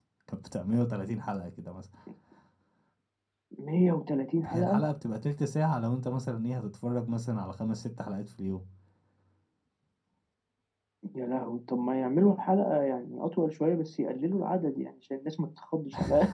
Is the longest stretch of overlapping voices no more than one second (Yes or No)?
Yes